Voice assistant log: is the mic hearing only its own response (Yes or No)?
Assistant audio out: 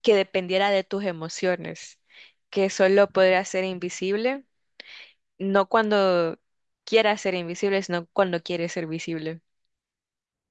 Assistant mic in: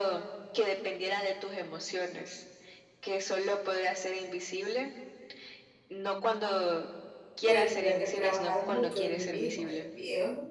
No